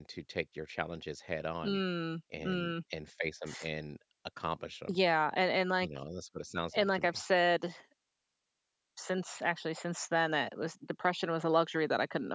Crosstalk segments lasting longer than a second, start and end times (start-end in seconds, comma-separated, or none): none